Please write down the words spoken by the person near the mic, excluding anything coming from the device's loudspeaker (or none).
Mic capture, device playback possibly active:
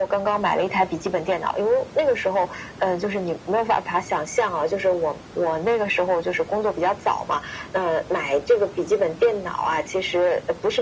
none